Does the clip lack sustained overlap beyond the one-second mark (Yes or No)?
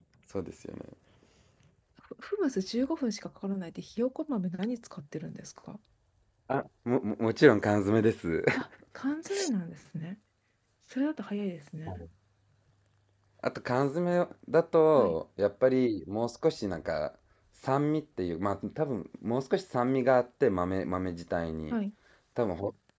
Yes